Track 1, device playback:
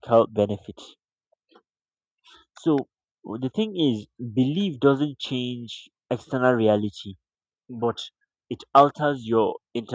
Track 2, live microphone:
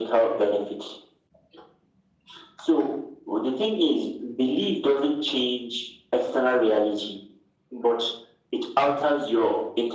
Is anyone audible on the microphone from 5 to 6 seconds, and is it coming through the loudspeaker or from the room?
echo only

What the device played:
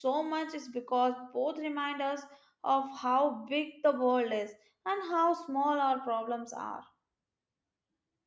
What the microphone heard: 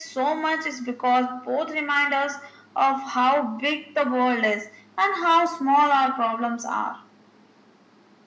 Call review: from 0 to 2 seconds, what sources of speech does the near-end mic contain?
echo only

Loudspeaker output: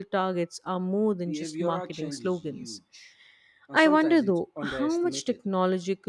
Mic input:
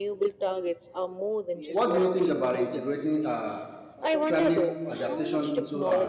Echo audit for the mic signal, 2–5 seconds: both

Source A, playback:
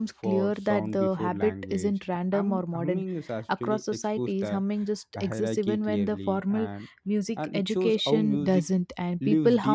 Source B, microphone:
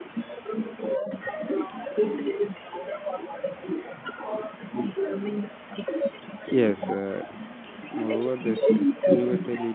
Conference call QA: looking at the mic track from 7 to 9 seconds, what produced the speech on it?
both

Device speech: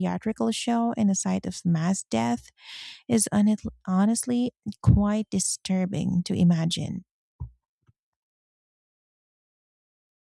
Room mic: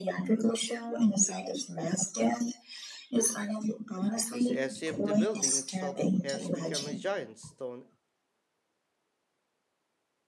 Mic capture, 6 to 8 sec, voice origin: both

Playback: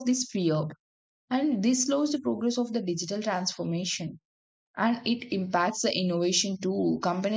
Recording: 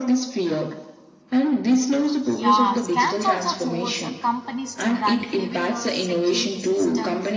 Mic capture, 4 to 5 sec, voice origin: both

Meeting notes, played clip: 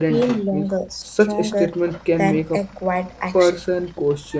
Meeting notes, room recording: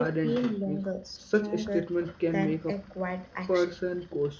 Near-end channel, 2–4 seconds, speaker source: echo only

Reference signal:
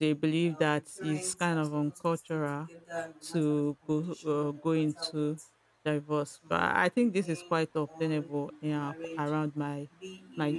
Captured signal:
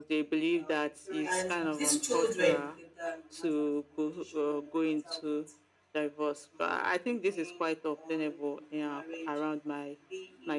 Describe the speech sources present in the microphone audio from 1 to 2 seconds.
both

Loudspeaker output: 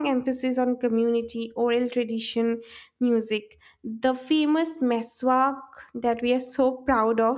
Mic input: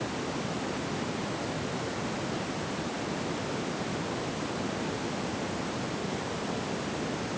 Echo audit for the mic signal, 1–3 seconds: neither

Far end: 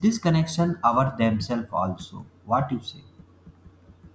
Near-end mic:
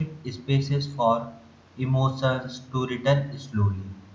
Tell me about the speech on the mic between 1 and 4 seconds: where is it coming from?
user only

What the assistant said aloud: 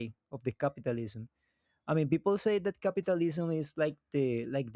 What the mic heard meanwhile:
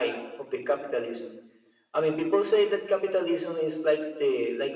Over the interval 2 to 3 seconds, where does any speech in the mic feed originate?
echo only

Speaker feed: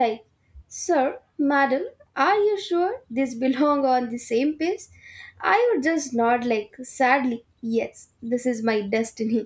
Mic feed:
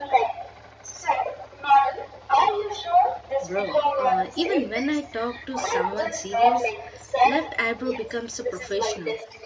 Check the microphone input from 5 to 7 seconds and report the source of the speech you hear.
both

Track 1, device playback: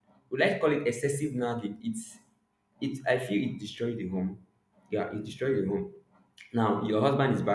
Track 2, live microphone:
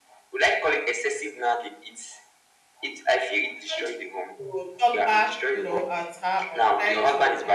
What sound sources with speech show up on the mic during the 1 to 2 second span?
echo only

